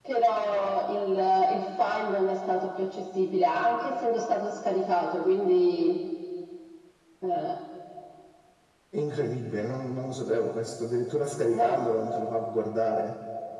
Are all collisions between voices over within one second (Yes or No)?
Yes